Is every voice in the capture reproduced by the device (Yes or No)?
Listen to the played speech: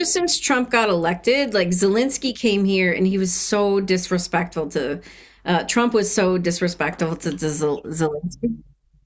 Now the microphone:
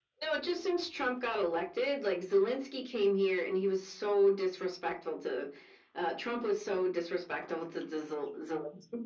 Yes